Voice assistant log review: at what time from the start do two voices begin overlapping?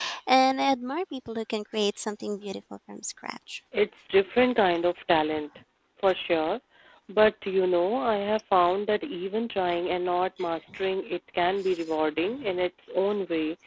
none

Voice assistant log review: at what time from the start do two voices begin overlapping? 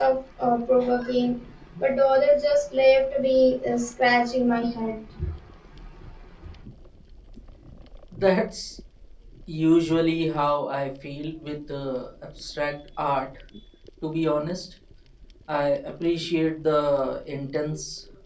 none

